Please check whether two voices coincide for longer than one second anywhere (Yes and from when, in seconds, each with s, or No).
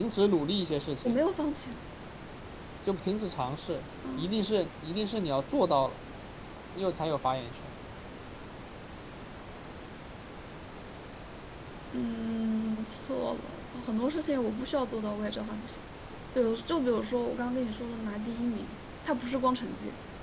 No